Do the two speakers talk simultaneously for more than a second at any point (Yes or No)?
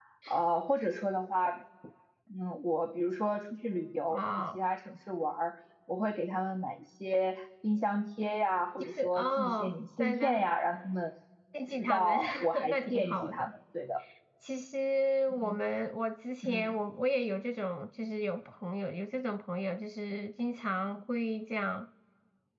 Yes